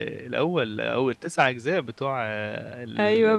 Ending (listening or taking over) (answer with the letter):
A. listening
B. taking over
B